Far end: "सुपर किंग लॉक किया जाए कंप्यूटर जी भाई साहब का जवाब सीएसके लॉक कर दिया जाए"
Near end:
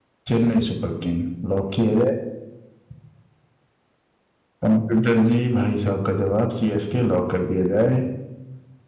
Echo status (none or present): present